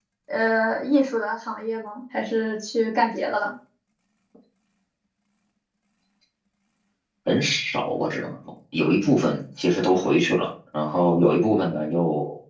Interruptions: none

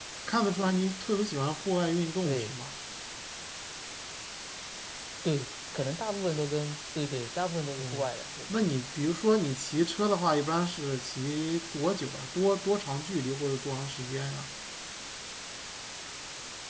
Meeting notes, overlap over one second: none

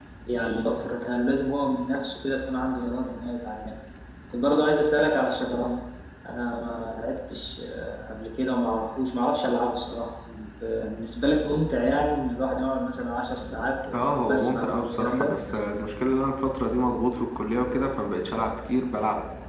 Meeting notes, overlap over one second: present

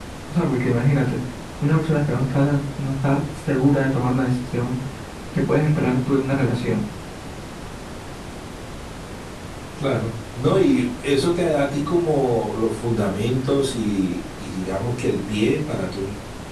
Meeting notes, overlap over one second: none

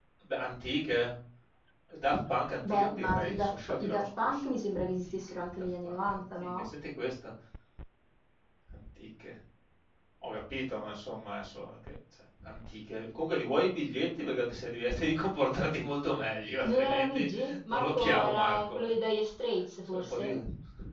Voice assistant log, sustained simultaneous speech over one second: present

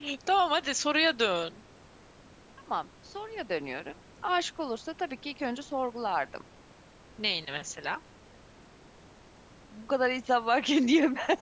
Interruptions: none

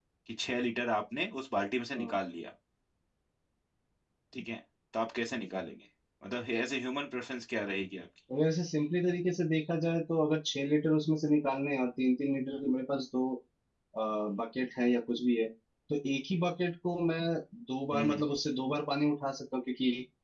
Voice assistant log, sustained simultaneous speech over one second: none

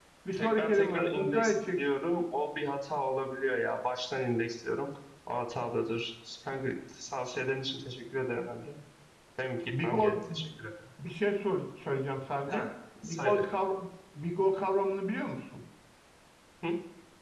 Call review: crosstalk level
present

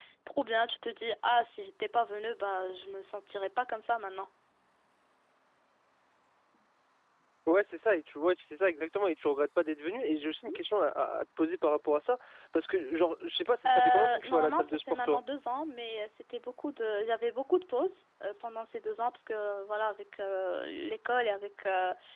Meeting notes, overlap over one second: present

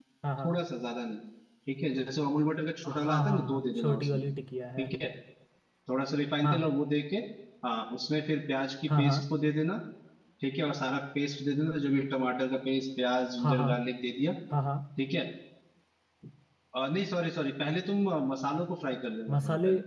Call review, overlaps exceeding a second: present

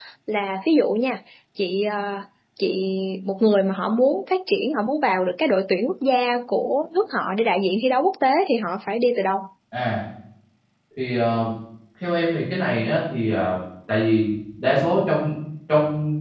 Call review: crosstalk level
none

